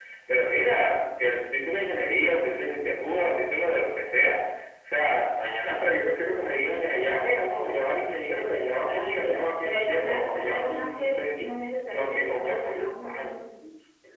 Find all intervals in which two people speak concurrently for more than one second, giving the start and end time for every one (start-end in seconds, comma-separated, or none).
8.7-11.4, 11.9-13.4